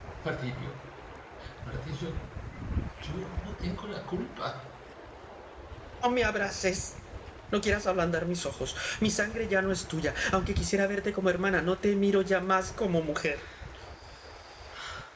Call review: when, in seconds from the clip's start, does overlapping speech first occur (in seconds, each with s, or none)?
none